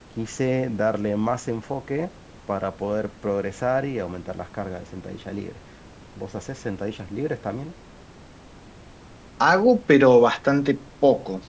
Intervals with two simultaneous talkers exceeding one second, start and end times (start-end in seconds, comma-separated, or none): none